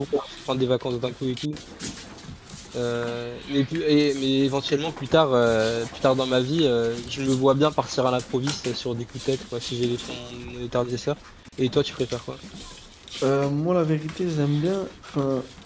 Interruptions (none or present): none